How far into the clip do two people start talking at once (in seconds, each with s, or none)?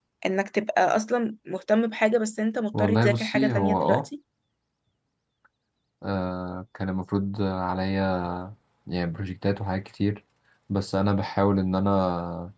2.7 s